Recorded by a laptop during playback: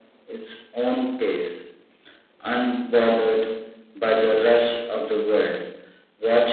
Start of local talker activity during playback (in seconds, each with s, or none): none